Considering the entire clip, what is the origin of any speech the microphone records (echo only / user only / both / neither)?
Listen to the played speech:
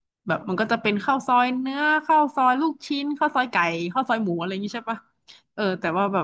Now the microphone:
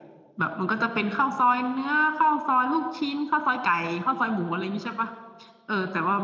echo only